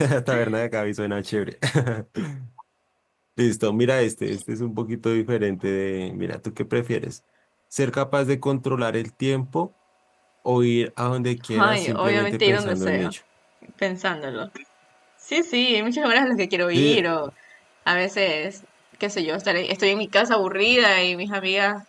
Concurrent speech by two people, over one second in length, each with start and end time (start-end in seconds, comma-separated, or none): 11.5-13.1